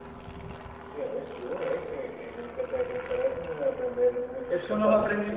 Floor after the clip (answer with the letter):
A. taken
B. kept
A